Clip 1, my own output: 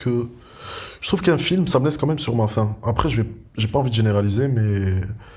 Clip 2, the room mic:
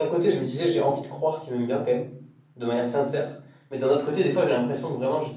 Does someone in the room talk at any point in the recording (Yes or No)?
Yes